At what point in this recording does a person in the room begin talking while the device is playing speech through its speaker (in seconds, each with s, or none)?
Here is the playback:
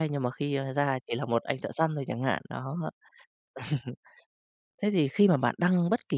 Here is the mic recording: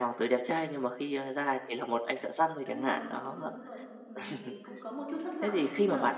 2.6 s